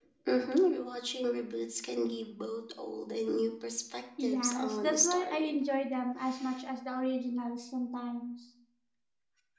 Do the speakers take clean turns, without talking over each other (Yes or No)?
No